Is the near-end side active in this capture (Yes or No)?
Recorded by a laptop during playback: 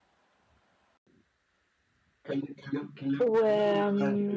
Yes